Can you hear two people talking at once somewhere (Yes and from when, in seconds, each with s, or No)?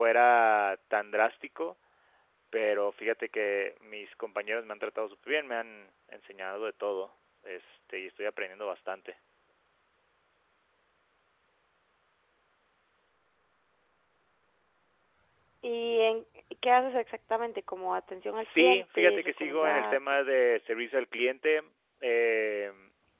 Yes, from 18.4 s